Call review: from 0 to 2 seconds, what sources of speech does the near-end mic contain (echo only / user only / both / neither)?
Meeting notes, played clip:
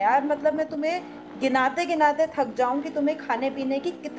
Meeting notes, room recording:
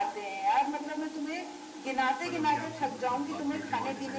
echo only